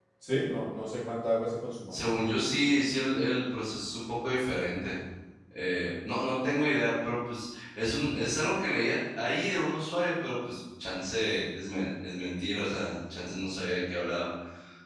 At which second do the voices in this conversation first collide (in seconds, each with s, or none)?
none